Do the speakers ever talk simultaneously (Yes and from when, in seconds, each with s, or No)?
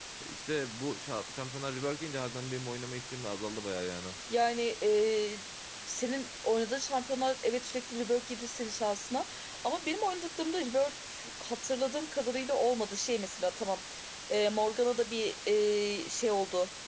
No